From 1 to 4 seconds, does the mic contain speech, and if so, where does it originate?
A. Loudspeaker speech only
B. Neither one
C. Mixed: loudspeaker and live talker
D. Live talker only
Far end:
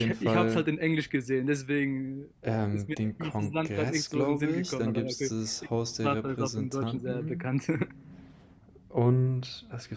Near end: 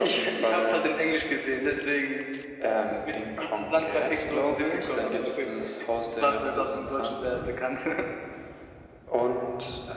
A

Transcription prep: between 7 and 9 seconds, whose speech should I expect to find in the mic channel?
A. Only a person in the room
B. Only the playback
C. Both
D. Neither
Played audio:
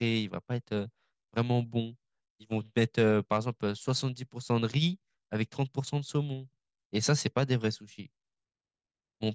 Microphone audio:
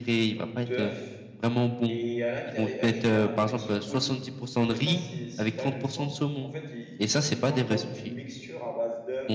C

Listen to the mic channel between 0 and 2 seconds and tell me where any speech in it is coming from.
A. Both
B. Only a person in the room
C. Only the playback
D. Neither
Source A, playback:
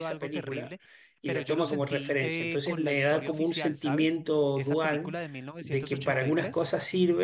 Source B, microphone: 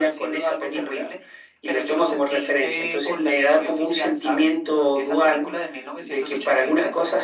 C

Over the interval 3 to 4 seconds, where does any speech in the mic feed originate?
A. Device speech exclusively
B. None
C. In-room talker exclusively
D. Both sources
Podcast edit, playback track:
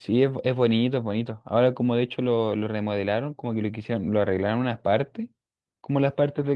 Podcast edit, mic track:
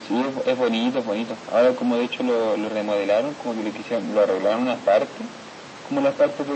A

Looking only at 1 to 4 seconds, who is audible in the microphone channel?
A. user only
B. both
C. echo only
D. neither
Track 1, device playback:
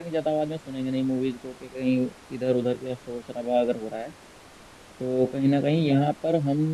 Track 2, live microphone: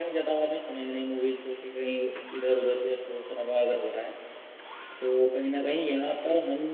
C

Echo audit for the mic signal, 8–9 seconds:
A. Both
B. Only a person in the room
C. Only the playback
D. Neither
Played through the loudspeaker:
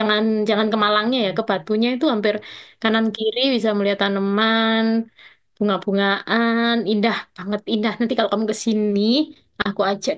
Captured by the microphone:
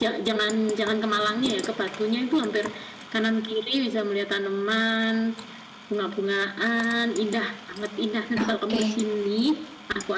A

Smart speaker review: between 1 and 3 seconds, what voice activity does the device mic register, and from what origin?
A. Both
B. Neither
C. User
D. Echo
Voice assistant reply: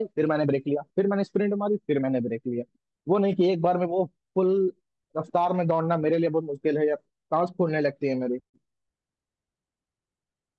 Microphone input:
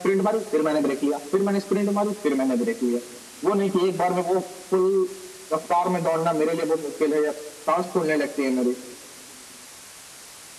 D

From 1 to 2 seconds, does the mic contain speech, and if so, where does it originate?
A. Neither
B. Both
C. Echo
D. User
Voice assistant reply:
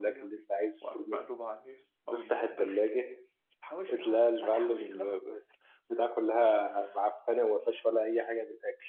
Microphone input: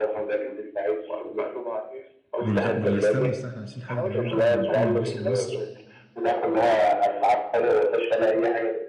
C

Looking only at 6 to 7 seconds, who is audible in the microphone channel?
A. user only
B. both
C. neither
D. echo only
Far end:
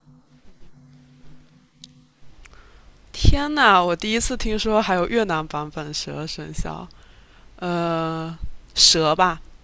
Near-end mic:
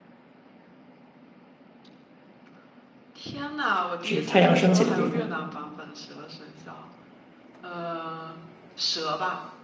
D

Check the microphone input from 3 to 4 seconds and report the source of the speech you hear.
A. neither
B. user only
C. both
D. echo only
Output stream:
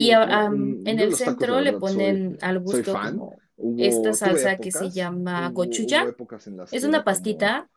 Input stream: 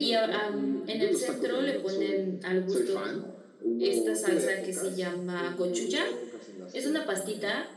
D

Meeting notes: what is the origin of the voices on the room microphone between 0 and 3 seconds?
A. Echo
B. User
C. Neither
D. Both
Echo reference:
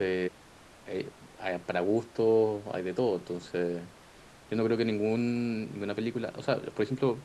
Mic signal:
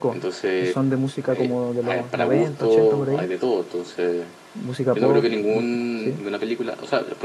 D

